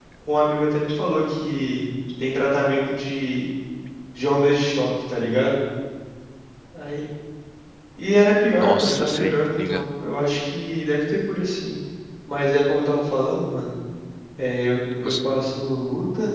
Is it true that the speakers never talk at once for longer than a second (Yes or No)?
No